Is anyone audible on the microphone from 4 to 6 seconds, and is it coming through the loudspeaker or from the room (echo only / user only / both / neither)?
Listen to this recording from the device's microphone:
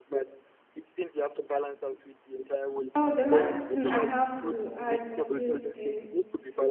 both